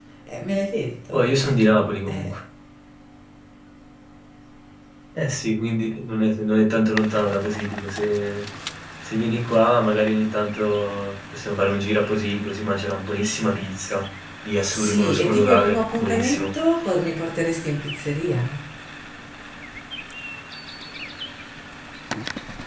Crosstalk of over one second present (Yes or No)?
Yes